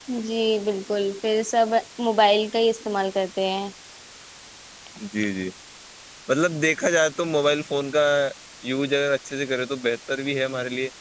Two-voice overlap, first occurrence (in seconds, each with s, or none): none